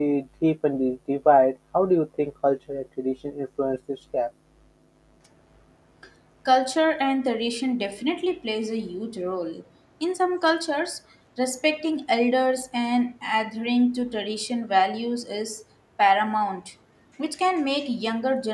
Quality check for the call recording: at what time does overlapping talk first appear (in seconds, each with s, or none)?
none